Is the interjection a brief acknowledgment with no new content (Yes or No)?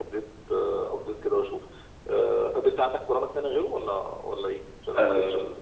No